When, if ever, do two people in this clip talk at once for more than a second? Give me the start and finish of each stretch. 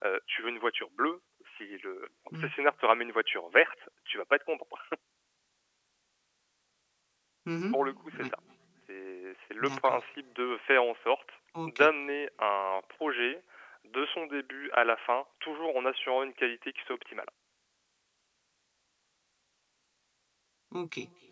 none

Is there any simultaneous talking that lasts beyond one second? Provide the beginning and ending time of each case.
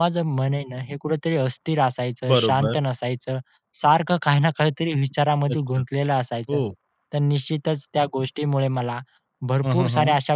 none

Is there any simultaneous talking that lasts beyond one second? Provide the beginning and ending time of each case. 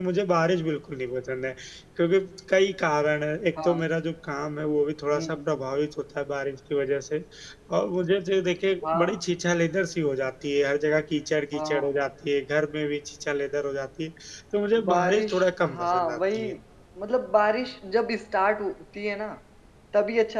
14.8-16.5

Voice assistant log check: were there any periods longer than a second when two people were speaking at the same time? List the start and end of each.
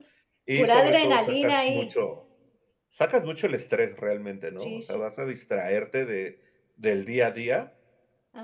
0.6-1.9

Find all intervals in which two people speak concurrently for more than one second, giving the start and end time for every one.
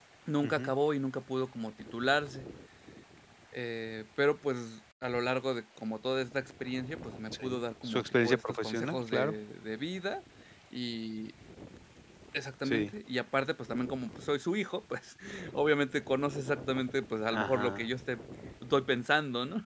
7.3-9.3

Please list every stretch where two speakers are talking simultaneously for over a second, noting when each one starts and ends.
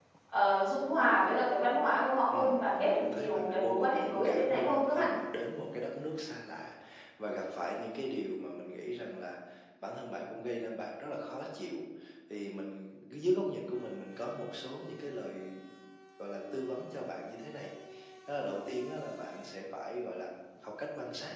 2.3-5.1

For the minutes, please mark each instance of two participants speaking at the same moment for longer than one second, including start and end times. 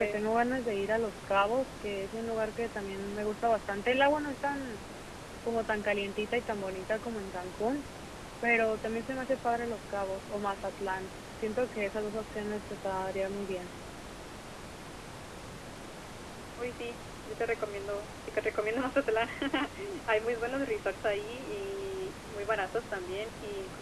none

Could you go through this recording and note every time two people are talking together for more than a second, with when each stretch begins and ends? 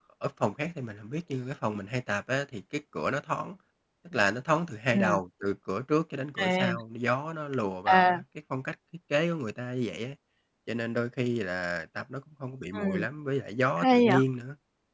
none

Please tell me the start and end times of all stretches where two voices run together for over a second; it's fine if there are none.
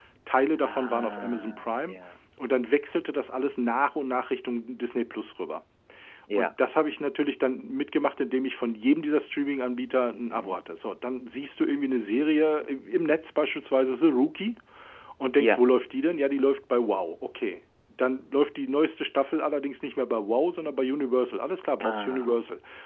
0.7-1.9

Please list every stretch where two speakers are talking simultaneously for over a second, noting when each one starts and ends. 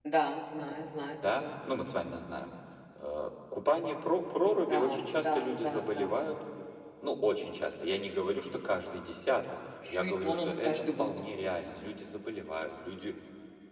4.6-6.2, 9.9-11.2

